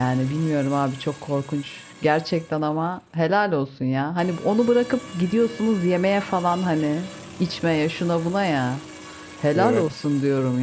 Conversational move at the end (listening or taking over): listening